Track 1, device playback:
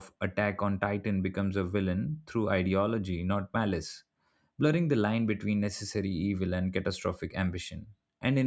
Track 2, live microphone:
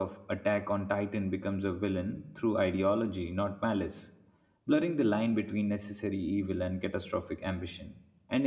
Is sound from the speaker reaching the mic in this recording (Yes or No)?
Yes